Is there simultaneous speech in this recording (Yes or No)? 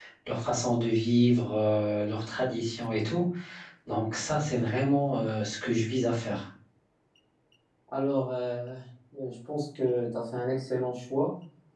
No